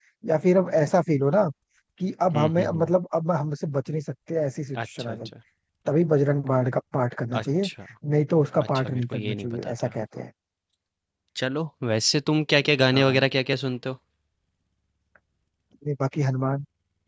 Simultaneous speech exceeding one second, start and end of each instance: 8.6-9.9

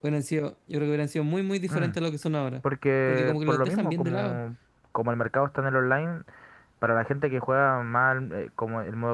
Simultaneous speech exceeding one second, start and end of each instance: 3.1-4.4

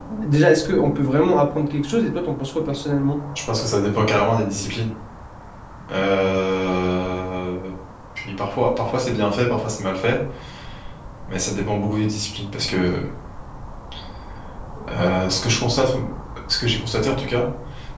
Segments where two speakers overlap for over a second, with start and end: none

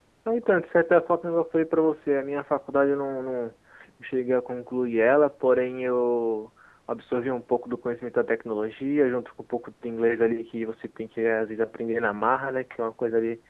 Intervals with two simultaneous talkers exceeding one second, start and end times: none

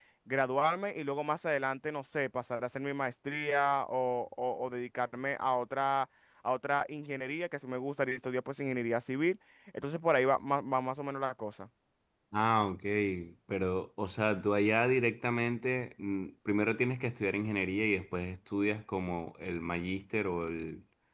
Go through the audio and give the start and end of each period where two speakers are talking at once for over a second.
none

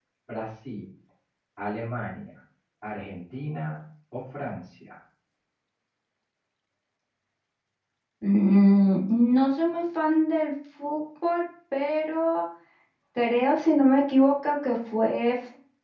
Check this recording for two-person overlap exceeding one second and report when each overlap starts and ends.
none

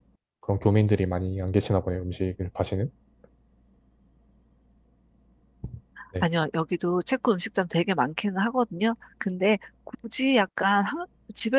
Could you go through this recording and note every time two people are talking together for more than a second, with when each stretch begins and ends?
none

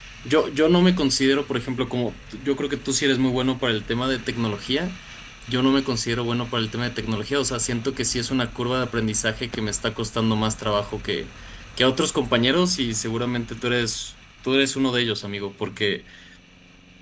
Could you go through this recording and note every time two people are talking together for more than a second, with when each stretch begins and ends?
none

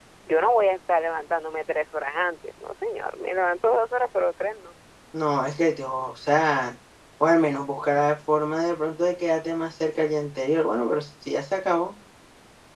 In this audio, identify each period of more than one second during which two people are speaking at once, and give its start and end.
none

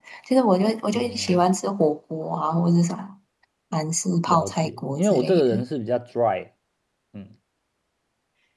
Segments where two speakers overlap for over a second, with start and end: 4.3-5.6

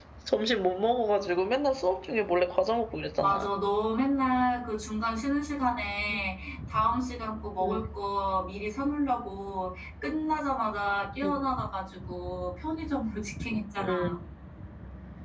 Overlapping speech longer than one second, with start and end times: none

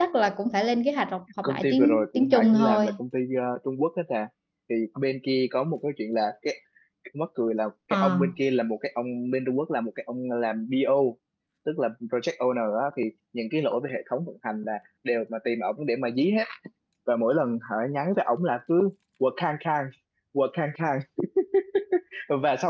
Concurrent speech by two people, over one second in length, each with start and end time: 1.4-2.9

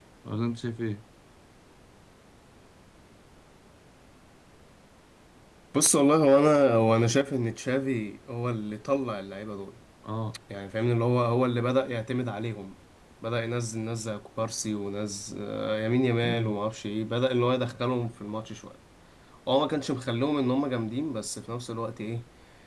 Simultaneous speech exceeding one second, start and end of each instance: none

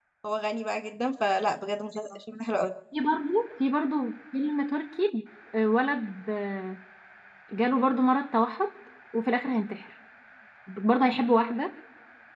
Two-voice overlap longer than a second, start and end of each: none

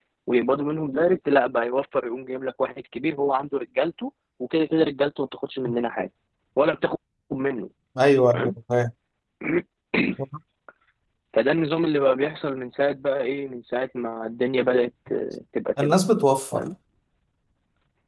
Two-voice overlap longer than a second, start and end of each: none

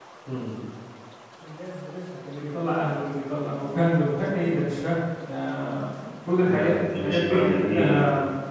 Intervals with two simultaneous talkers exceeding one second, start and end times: 6.4-8.0

